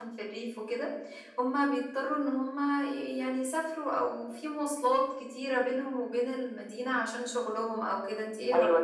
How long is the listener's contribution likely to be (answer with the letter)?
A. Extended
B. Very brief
A